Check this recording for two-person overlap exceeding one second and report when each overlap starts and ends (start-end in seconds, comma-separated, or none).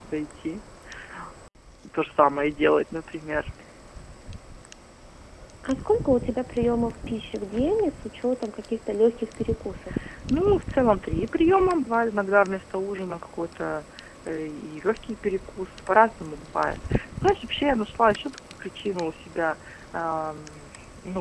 none